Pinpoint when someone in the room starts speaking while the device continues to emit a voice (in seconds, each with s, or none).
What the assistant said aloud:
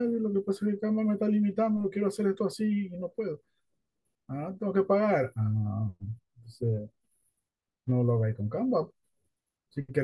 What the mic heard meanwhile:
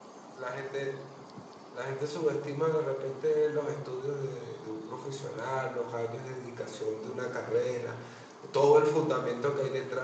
0.3 s